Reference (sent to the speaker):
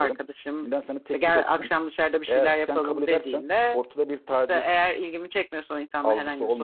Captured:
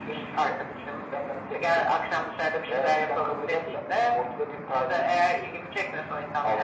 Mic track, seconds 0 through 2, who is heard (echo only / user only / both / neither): echo only